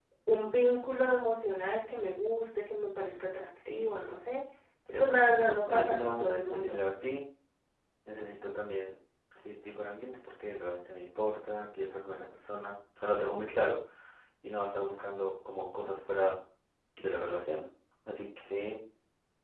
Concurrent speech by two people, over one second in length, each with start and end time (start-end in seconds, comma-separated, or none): 5.7-6.9